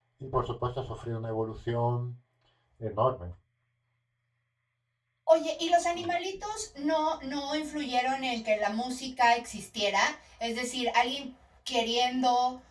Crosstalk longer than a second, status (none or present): none